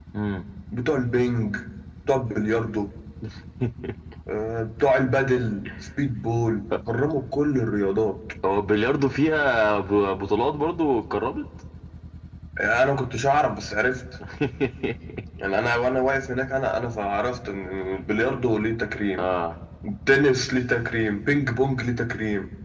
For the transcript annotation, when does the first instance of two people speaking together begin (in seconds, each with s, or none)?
none